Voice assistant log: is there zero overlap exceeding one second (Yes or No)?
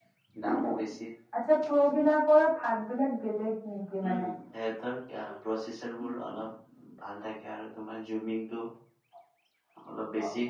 Yes